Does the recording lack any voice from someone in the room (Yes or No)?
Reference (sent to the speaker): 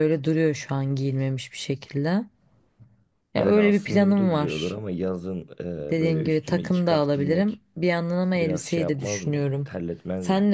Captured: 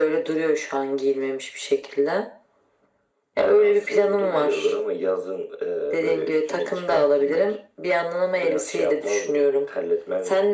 Yes